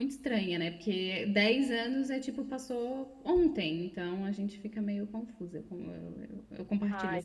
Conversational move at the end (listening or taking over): taking over